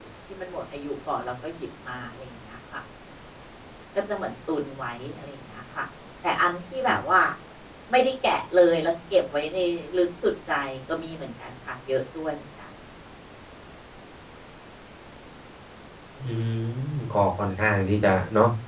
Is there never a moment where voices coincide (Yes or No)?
Yes